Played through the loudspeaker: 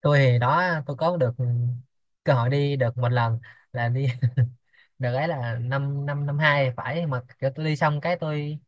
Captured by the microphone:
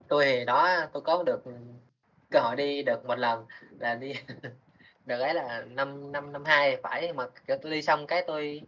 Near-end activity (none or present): none